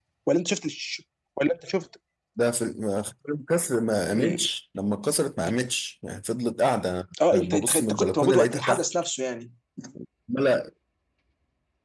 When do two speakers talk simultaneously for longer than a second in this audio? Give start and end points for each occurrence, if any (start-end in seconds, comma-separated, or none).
7.3-8.8